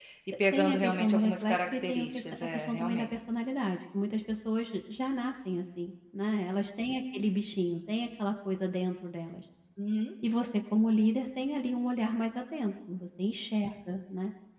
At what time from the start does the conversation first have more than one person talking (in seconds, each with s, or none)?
0.5 s